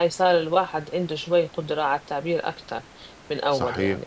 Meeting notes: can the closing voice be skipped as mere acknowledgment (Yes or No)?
No